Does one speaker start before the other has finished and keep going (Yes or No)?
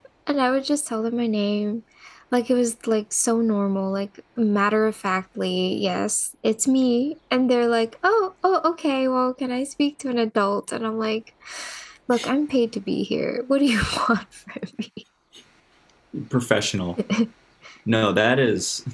No